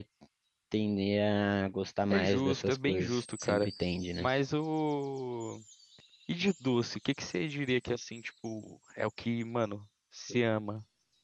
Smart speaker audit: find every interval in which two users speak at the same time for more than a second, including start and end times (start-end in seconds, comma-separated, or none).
2.1-3.7